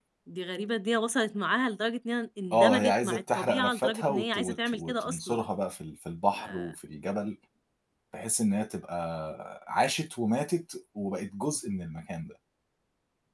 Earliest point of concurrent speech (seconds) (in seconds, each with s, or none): 2.5 s